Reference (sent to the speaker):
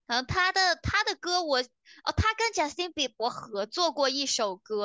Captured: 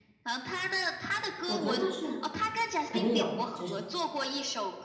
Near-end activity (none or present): present